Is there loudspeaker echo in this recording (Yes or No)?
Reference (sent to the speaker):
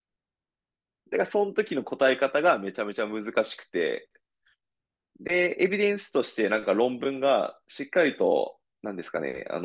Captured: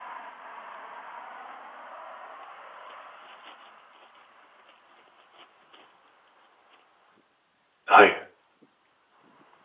No